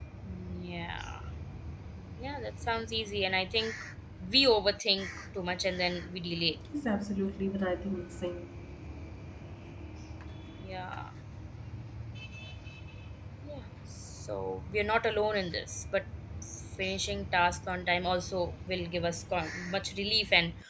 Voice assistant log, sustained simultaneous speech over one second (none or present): none